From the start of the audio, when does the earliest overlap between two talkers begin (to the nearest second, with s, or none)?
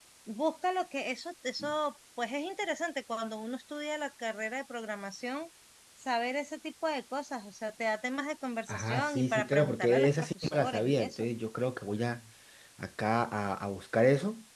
9 s